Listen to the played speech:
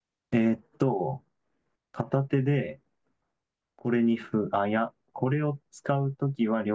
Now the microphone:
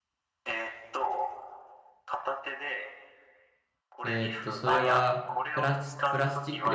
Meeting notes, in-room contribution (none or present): present